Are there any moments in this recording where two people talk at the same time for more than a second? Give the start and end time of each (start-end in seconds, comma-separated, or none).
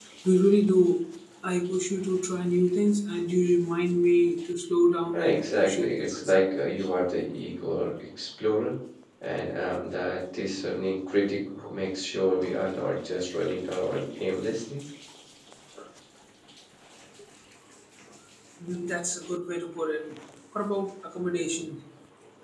5.1-6.3